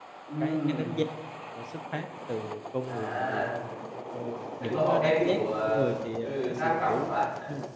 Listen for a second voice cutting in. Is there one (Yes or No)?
Yes